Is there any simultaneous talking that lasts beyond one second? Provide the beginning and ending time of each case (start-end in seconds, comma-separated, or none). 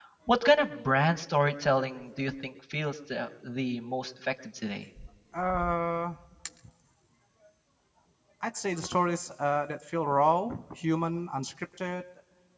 none